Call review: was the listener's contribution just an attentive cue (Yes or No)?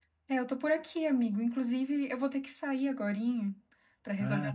Yes